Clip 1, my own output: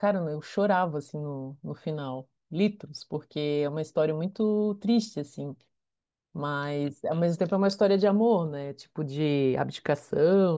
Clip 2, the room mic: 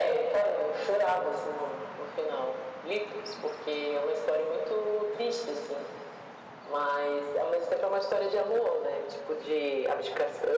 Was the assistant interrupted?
No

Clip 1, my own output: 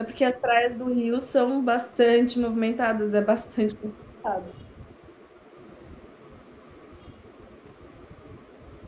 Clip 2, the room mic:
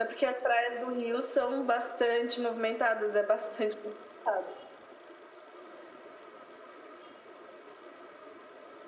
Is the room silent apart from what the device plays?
Yes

